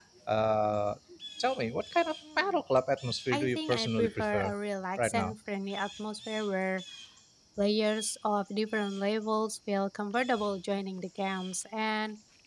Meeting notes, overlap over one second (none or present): present